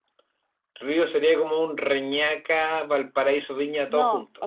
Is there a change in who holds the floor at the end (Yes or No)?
Yes